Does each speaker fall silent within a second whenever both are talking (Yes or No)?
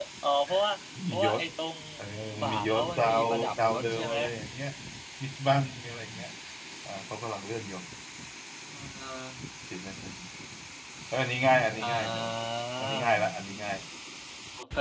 No